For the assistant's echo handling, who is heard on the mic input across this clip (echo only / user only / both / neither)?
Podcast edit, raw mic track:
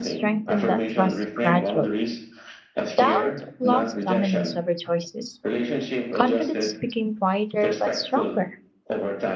both